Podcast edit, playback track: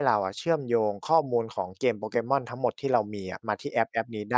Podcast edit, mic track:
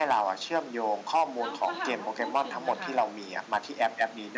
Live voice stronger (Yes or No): No